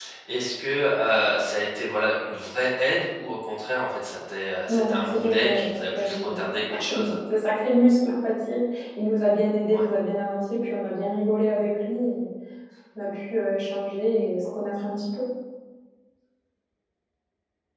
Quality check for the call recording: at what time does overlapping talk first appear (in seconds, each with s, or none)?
4.7 s